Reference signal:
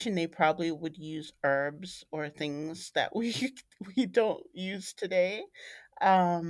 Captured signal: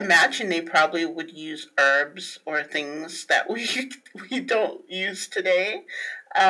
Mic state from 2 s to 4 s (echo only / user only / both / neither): echo only